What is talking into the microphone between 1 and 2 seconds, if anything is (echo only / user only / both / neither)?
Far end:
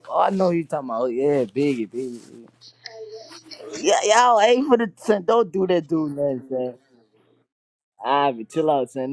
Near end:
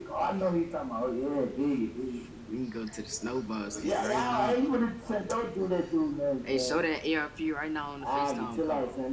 echo only